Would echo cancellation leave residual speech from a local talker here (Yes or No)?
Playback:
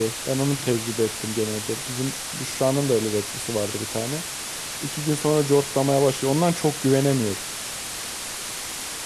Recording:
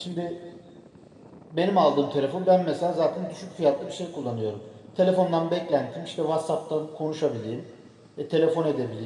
Yes